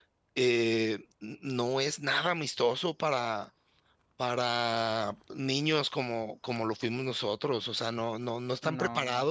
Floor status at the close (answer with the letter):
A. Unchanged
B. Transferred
A